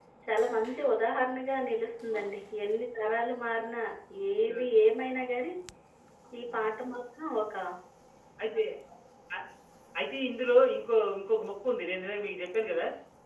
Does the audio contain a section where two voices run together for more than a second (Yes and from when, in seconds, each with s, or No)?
No